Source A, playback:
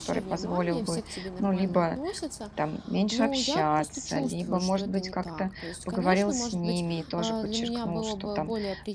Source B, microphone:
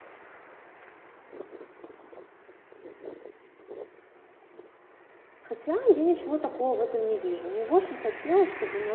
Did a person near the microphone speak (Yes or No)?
Yes